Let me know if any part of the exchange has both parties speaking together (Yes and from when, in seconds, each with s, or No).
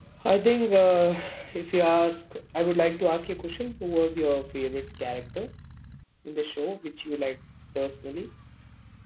No